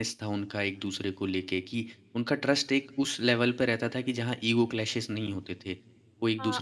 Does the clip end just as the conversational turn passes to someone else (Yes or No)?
Yes